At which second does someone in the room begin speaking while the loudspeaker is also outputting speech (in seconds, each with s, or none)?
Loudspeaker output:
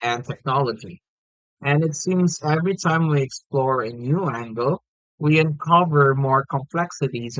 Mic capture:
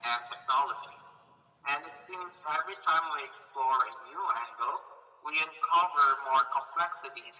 none